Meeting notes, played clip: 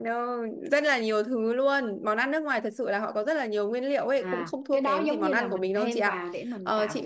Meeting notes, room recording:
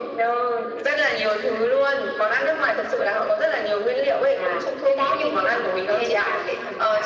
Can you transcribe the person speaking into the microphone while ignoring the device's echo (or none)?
none